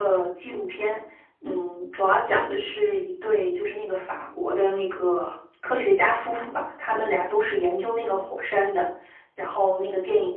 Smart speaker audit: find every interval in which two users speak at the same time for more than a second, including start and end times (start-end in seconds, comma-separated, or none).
none